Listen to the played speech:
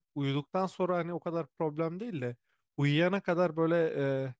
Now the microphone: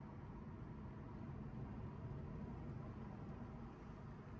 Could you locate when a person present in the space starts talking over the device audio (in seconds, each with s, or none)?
none